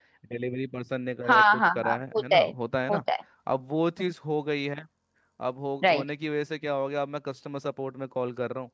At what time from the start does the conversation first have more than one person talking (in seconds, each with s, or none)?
1.3 s